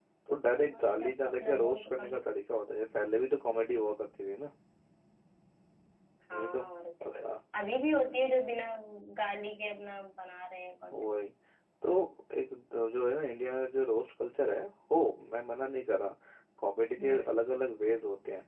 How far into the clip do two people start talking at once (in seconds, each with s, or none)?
0.5 s